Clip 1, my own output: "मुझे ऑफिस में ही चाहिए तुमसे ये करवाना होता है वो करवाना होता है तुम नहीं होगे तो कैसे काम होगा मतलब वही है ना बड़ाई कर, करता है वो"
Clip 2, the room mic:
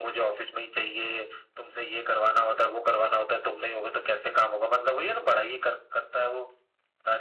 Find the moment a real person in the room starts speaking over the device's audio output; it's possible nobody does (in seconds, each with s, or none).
none